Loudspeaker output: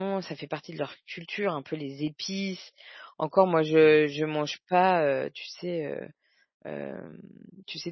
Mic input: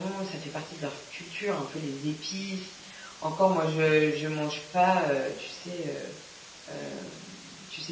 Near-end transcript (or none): none